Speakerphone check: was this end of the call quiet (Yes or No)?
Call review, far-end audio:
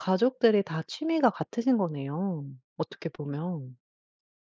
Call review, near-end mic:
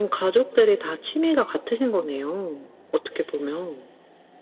Yes